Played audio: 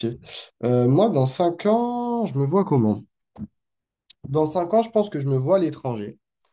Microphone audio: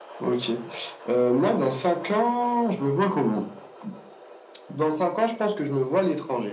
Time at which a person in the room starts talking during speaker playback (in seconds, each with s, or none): none